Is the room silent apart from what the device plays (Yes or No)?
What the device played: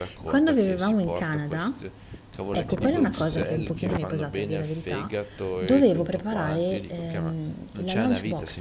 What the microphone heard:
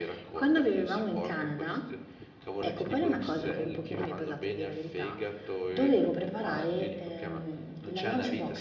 Yes